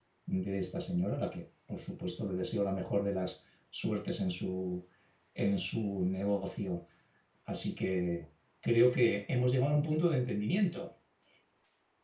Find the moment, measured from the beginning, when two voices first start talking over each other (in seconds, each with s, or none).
none